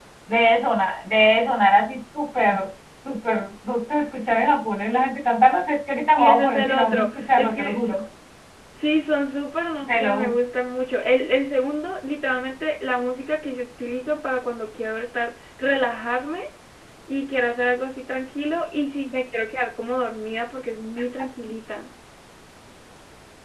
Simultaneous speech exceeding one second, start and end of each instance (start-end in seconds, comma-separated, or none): 6.2-8.0